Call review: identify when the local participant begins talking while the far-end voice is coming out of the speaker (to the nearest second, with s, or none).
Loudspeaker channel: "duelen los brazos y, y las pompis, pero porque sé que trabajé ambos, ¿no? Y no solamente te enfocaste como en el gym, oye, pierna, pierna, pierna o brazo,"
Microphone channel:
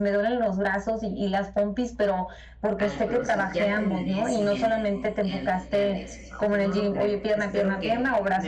3 s